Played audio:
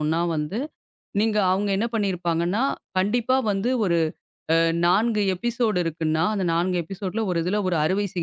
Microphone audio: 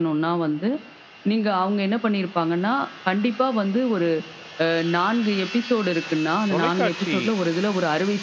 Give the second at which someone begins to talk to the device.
6.5 s

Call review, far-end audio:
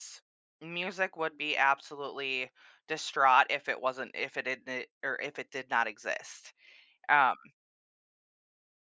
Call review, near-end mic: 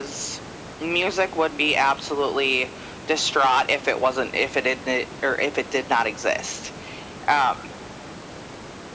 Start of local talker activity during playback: none

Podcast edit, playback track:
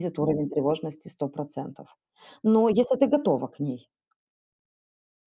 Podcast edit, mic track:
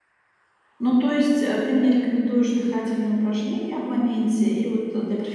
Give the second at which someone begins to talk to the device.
0.8 s

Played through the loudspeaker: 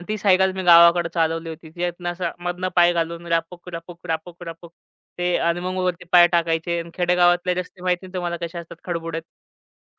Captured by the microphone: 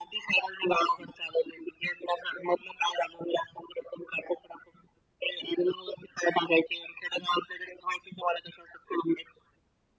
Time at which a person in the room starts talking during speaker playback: none

